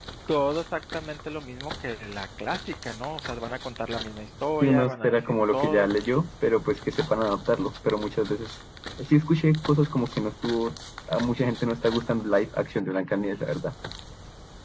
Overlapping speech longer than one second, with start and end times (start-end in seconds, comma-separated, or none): 4.6-5.9